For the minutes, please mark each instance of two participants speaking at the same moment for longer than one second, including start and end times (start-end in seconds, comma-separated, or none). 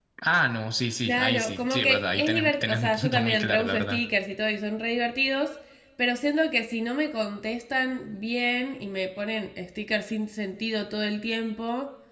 1.1-4.0